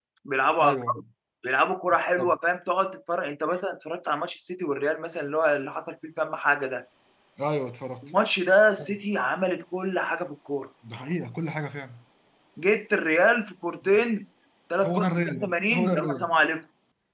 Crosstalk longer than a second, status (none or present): present